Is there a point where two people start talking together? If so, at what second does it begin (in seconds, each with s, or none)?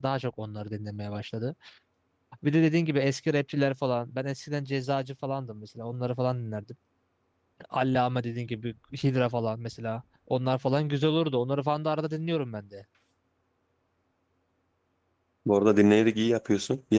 none